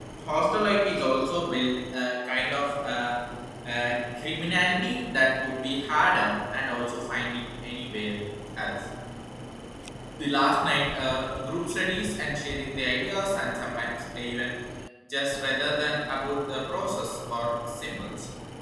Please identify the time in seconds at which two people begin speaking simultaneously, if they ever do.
none

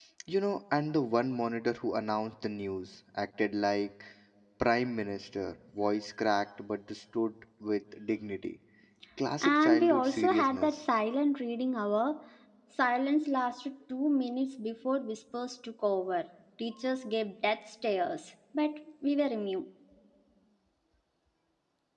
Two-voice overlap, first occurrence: 9.4 s

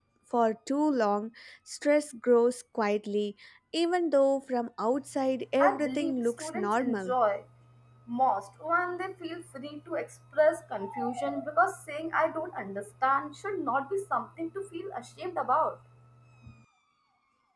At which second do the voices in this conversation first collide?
5.6 s

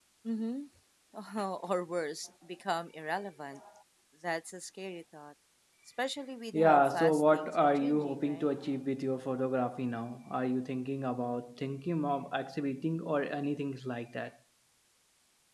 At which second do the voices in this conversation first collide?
6.5 s

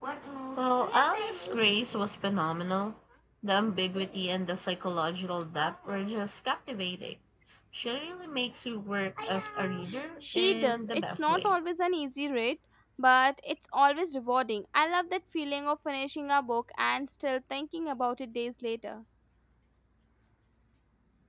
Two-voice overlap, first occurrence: 10.2 s

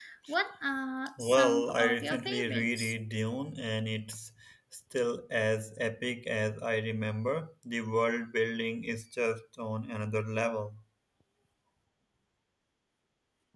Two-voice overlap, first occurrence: 1.2 s

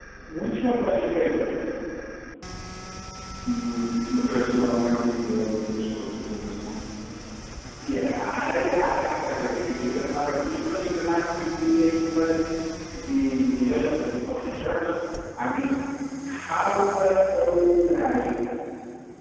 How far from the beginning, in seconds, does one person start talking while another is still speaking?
none

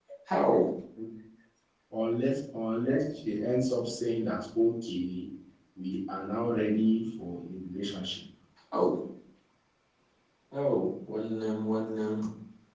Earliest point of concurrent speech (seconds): none

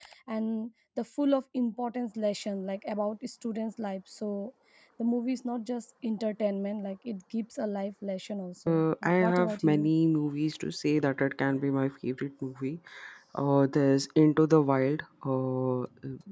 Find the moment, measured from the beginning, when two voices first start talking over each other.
8.7 s

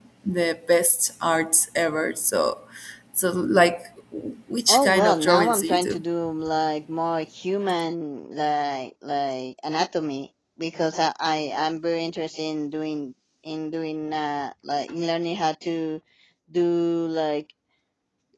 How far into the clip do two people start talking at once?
4.7 s

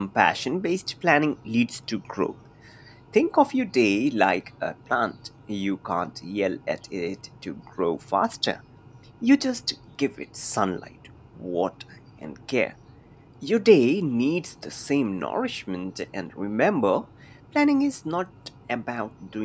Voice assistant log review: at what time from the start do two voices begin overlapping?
none

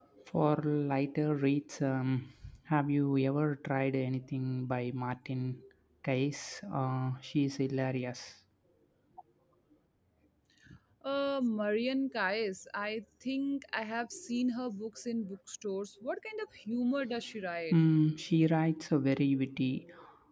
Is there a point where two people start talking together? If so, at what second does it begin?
none

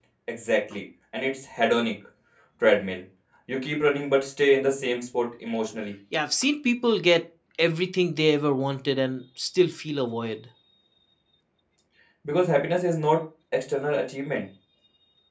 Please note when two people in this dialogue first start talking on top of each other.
none

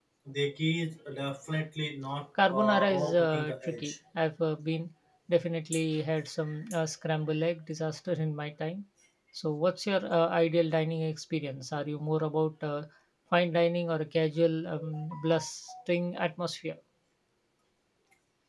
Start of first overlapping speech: 2.4 s

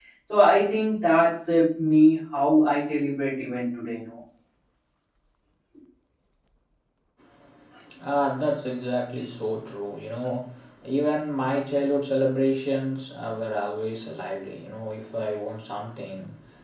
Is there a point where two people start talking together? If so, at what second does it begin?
none

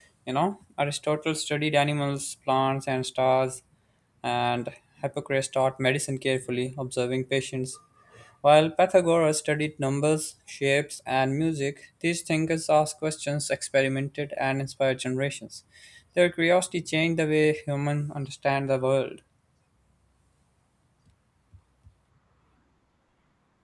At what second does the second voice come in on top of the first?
none

